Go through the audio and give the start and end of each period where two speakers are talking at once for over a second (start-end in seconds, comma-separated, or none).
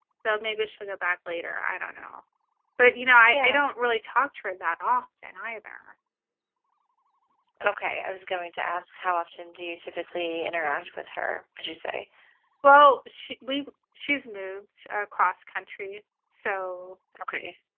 none